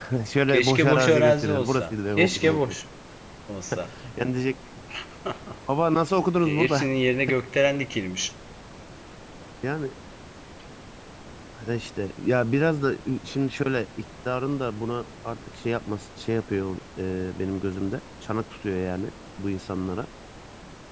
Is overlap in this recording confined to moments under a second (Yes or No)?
No